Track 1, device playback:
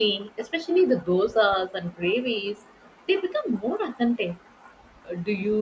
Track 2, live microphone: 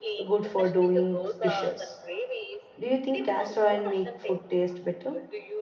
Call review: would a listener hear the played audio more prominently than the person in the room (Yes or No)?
No